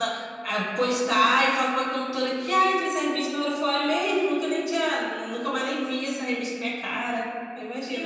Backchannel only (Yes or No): No